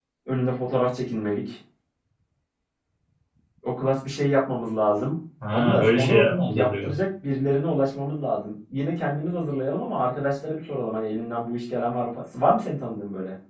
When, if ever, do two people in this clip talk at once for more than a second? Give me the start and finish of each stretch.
5.5-6.9

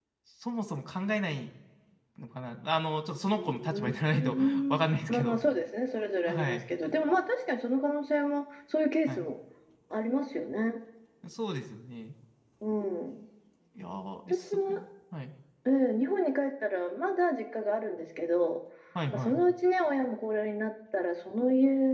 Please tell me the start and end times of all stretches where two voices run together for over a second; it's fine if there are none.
3.4-5.4

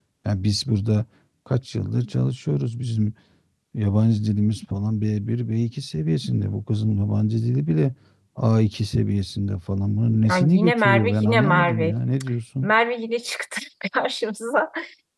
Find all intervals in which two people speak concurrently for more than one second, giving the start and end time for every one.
10.2-11.9

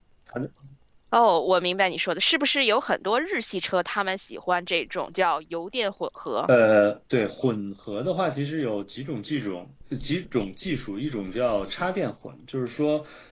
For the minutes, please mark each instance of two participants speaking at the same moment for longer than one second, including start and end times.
none

